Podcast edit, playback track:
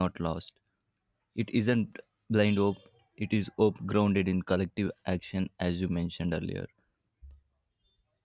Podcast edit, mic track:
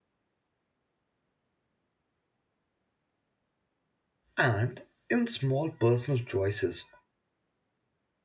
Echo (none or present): none